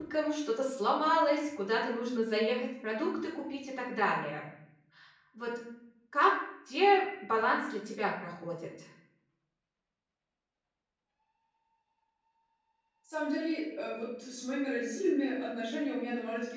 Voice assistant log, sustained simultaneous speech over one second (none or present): none